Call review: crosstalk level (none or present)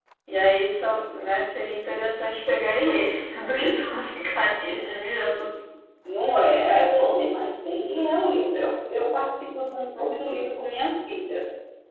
none